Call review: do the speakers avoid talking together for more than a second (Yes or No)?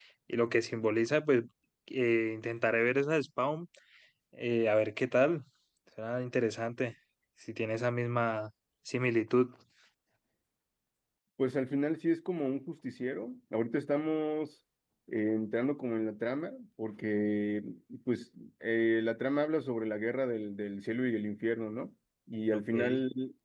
Yes